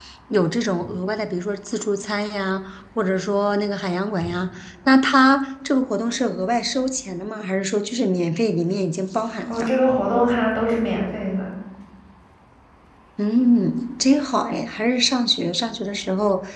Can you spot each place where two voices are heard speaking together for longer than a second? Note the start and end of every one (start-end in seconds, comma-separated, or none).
none